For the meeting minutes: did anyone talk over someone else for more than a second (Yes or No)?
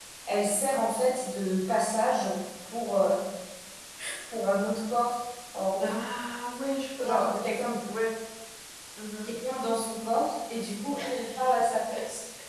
No